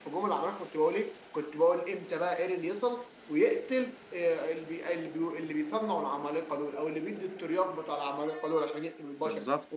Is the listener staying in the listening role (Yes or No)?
Yes